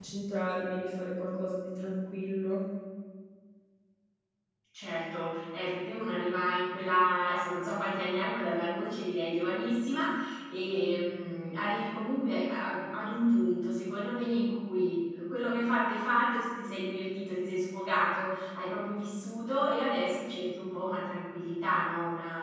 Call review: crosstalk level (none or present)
none